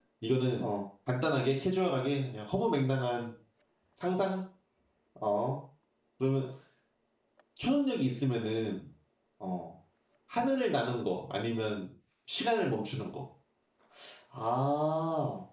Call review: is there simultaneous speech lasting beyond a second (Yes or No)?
No